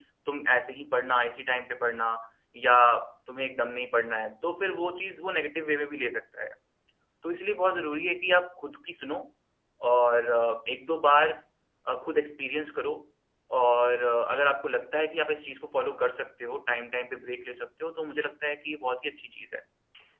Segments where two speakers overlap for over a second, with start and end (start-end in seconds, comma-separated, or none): none